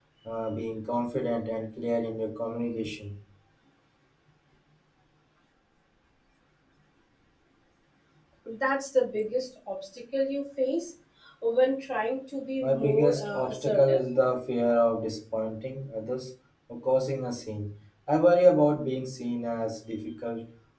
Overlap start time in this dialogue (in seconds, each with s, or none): 12.6 s